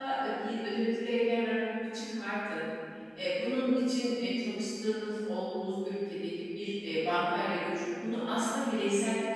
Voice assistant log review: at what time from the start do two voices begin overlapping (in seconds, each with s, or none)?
none